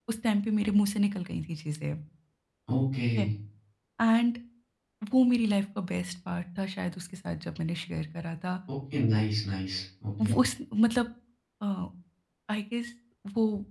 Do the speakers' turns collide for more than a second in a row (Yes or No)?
No